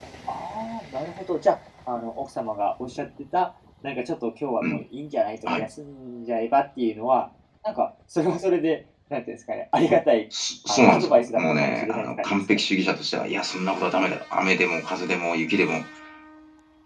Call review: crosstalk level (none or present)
present